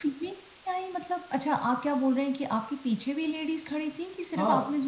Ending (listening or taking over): taking over